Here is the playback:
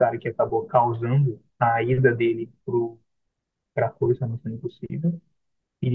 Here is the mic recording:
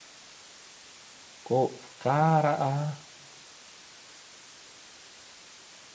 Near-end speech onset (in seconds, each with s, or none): 1.4 s